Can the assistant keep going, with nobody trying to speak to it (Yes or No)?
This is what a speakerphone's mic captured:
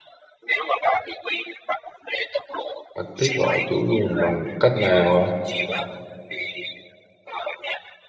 No